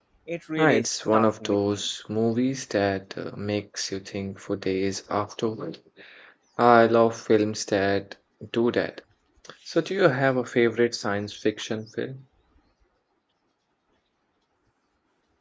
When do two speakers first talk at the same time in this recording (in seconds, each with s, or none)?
0.6 s